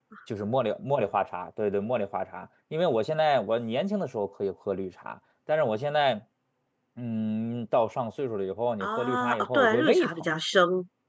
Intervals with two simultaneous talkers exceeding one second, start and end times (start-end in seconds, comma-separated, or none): 8.8-10.3